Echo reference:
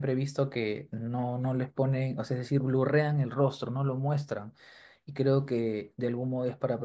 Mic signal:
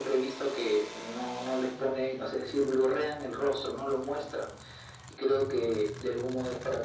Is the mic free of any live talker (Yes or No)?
Yes